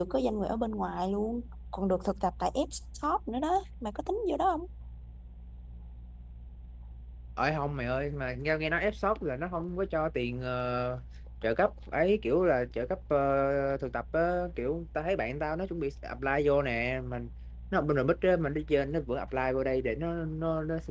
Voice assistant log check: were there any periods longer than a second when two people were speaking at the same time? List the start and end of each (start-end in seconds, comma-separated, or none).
none